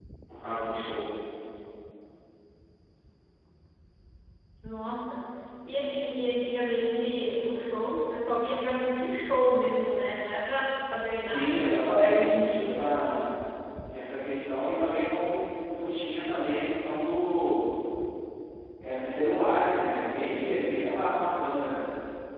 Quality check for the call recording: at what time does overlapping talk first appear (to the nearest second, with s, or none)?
11 s